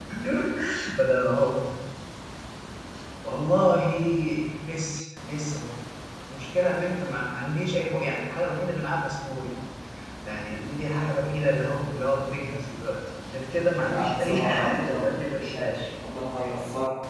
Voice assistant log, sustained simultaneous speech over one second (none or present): present